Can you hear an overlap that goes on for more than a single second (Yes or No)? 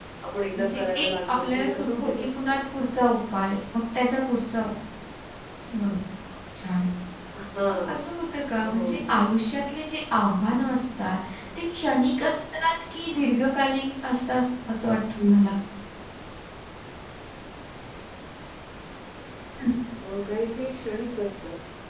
Yes